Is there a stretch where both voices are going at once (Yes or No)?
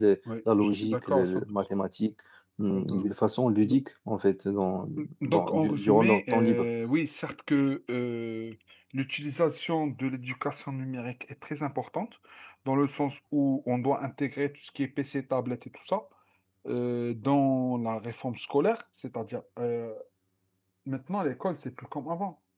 Yes